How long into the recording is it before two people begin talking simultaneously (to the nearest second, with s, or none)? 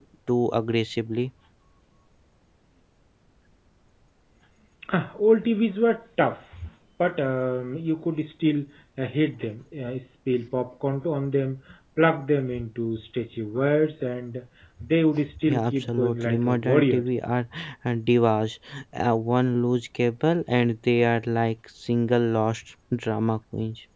15 s